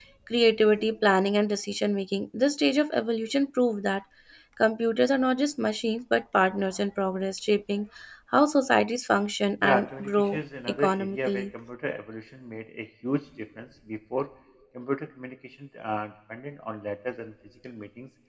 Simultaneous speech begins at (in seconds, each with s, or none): 9.6 s